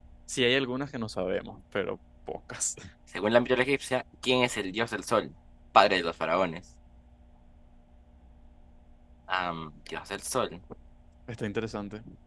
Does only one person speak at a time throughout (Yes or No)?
Yes